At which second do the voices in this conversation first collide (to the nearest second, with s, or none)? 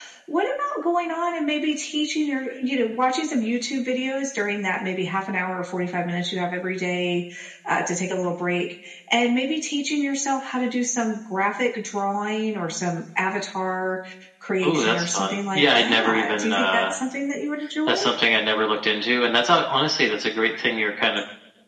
15 s